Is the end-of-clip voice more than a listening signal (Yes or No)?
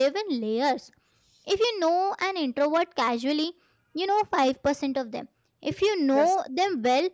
No